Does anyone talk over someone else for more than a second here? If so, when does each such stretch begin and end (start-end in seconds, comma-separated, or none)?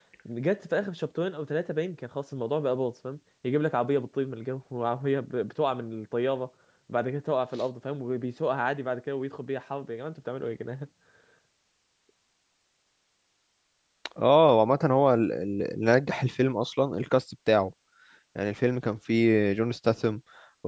none